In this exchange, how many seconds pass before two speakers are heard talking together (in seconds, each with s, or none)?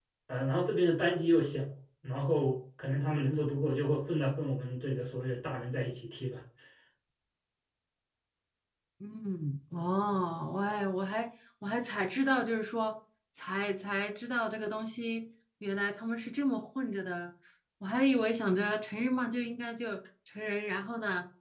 none